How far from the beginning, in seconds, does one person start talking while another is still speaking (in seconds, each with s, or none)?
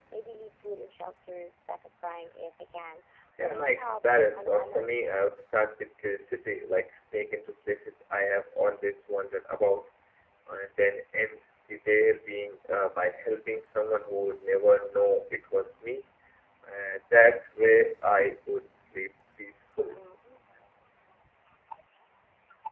3.4 s